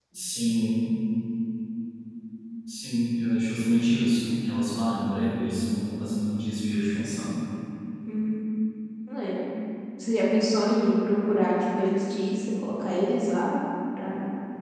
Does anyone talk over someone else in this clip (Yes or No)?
No